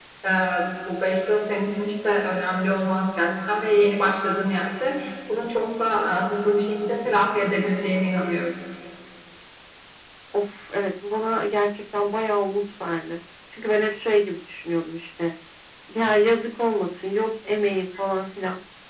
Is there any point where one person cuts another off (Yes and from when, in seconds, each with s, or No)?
No